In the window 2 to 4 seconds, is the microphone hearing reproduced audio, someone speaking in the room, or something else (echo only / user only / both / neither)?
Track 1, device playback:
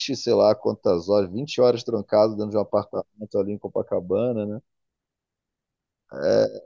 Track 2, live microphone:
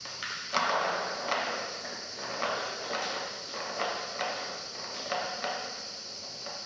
neither